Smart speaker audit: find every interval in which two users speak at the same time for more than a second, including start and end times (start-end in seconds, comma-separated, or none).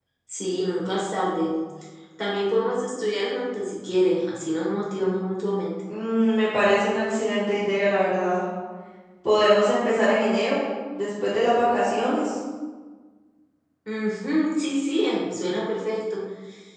none